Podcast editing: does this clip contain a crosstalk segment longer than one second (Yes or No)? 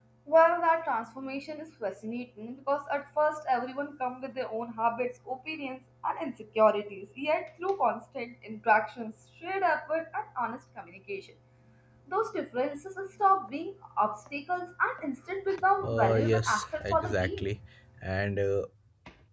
Yes